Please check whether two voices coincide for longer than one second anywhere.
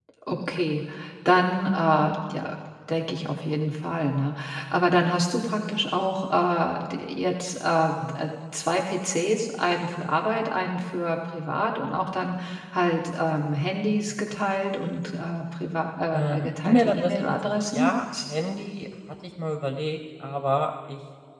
Yes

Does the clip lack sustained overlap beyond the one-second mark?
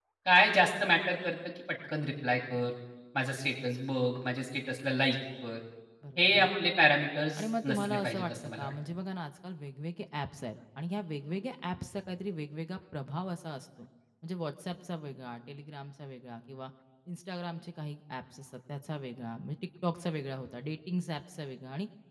No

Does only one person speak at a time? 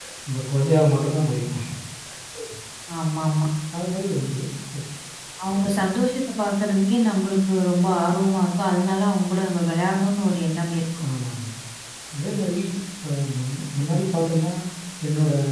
Yes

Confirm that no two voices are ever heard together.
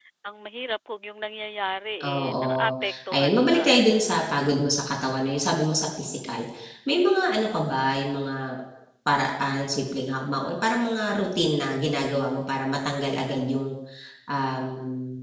No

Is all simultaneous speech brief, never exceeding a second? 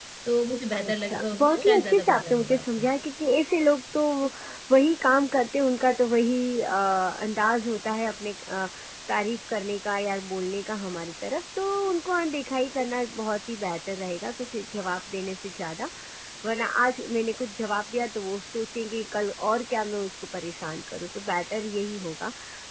No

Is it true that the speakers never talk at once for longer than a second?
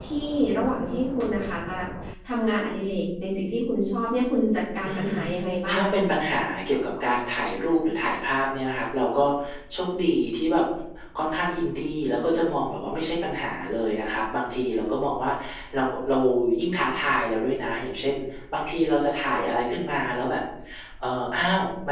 Yes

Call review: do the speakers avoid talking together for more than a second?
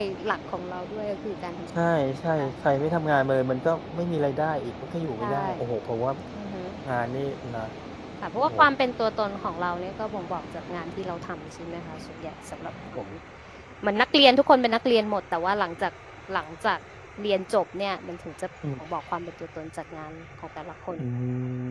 Yes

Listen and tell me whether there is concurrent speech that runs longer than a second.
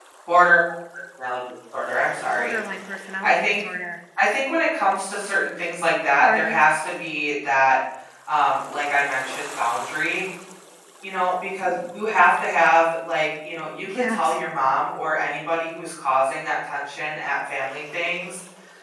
No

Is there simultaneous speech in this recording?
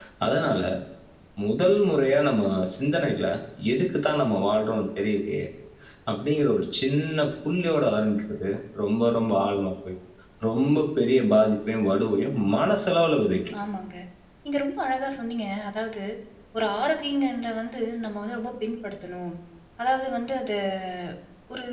No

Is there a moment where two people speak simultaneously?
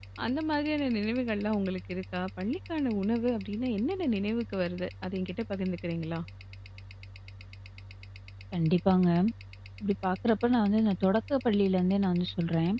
No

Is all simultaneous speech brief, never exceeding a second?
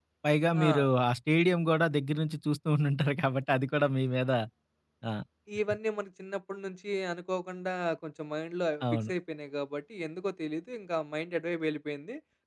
Yes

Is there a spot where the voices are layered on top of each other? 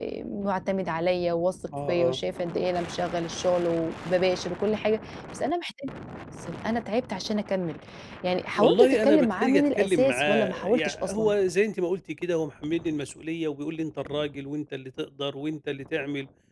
Yes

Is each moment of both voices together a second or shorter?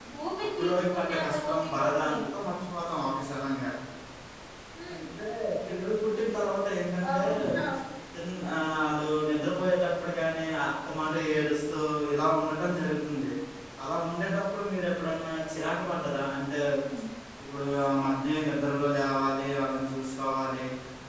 No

